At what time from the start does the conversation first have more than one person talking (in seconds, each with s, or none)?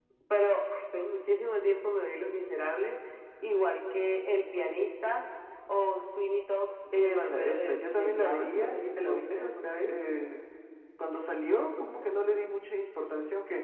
6.9 s